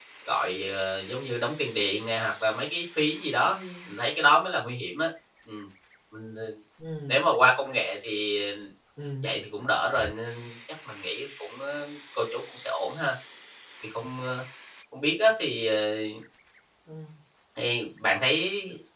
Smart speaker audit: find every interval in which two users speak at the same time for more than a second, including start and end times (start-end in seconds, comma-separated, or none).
none